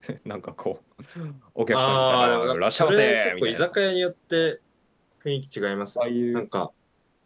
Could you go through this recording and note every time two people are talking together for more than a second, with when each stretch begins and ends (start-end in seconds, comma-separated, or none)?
1.7-3.6